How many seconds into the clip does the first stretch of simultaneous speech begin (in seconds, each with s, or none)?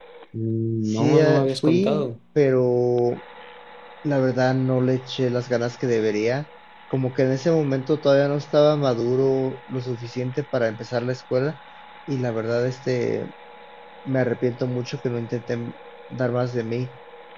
0.9 s